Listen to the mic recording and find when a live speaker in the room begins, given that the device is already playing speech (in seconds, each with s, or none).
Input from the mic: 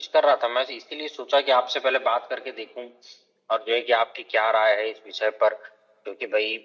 none